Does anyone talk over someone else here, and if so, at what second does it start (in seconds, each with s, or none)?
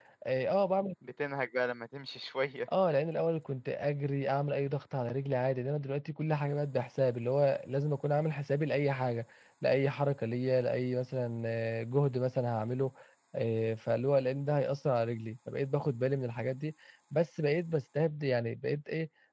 none